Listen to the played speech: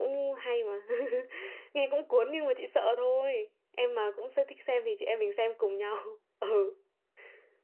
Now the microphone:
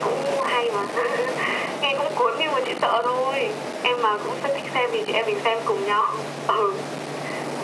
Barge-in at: none

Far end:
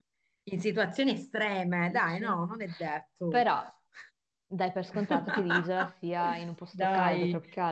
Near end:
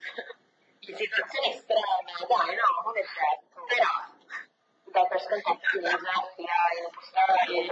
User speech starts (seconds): none

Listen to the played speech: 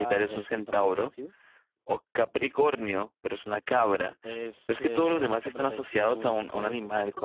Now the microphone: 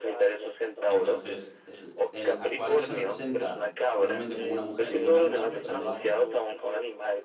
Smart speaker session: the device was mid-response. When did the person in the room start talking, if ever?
1 s

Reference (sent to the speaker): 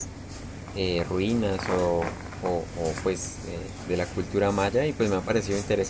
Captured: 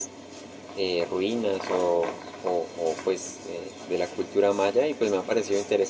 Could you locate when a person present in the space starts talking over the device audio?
none

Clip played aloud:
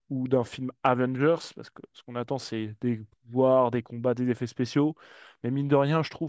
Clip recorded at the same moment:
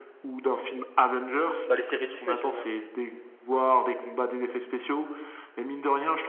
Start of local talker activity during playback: 2 s

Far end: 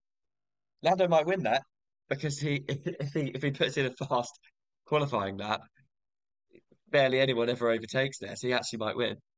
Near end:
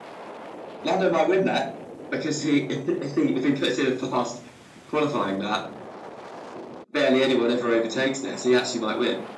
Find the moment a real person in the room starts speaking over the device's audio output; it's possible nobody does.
none

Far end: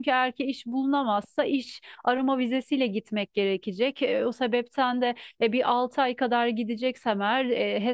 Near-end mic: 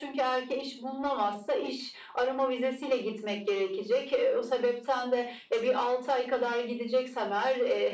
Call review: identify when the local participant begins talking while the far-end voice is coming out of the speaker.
none

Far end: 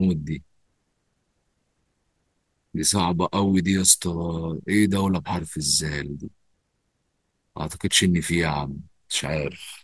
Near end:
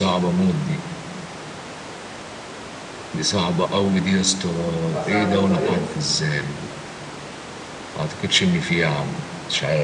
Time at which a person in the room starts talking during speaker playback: 5 s

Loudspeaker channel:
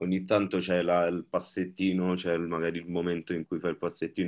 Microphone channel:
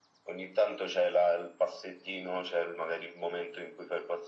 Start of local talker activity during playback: none

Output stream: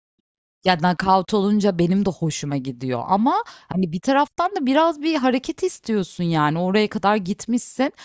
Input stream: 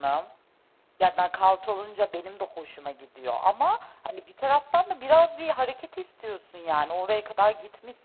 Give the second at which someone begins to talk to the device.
none

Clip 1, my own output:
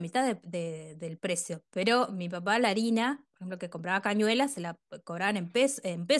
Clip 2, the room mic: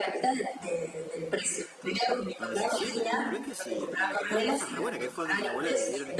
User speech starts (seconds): 2 s

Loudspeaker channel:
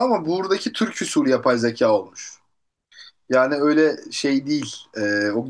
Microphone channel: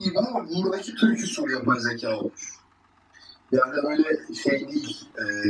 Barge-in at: none

